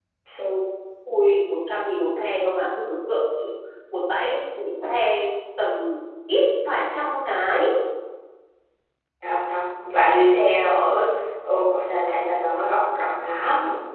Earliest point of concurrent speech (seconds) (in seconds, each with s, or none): none